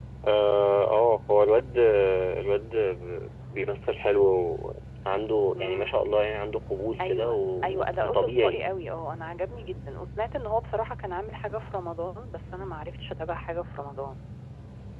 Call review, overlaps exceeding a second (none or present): present